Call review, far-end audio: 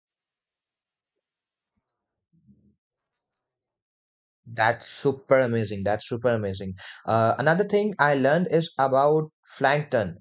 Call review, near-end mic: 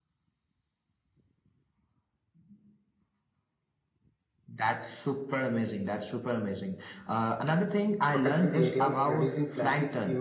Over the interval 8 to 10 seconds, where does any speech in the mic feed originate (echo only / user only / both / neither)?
both